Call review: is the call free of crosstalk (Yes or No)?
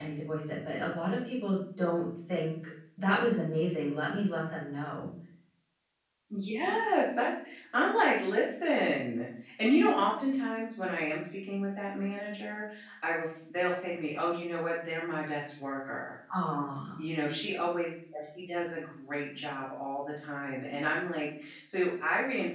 Yes